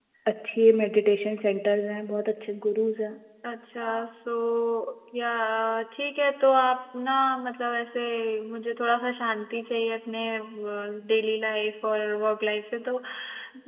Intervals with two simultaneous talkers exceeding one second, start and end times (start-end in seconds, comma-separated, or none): none